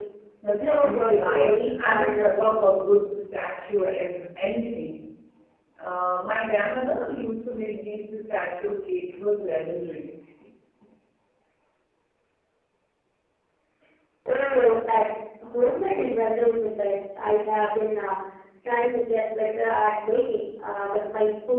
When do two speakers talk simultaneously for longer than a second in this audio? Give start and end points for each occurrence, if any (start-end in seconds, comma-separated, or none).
0.5-2.5